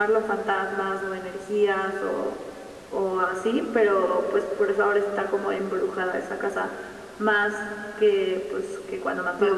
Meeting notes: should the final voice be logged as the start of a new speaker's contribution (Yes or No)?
Yes